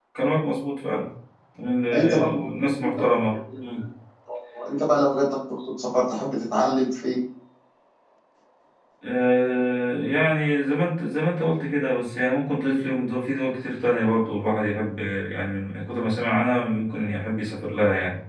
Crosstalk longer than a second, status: present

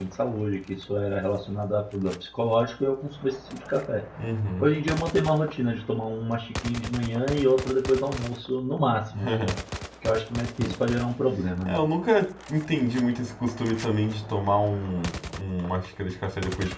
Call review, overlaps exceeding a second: none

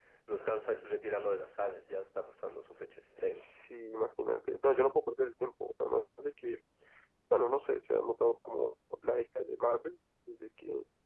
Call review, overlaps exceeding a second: none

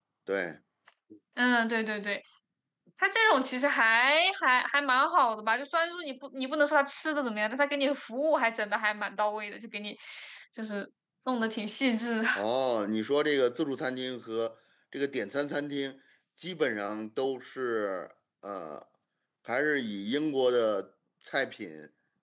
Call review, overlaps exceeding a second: none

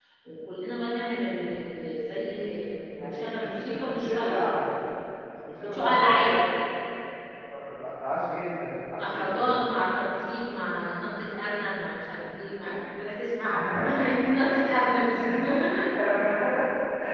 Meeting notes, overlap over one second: present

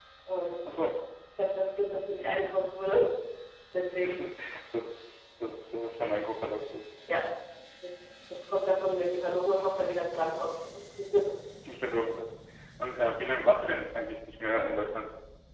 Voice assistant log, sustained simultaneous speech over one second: none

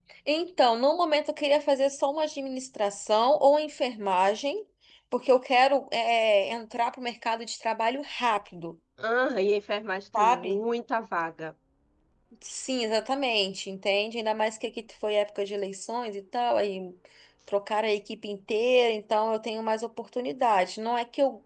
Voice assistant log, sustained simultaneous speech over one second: none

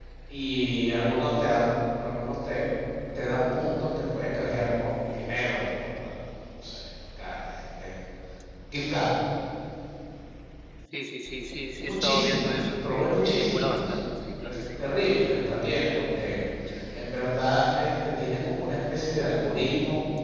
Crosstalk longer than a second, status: present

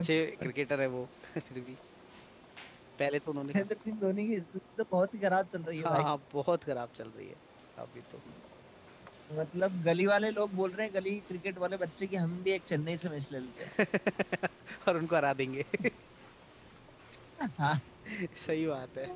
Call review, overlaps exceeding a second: none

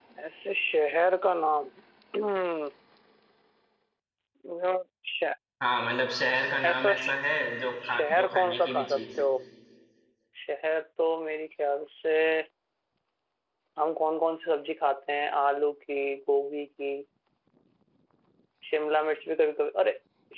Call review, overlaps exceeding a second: present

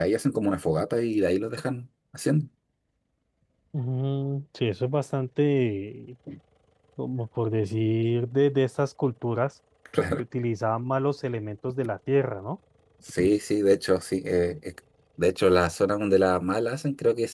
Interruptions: none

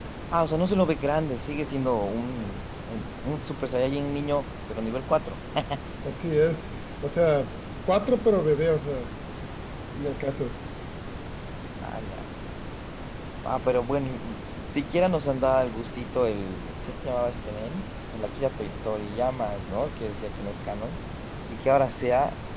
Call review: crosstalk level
none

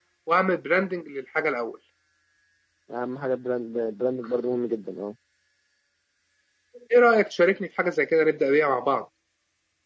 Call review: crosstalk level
none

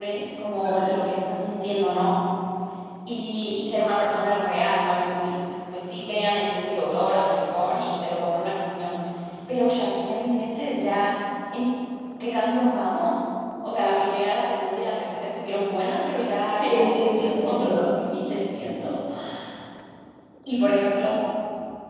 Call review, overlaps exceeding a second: present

